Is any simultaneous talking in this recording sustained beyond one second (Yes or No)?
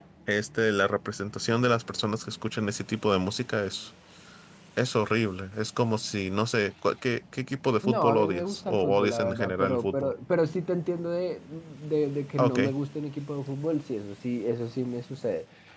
Yes